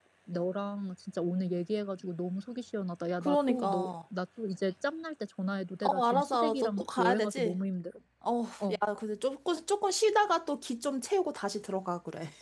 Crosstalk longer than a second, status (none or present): present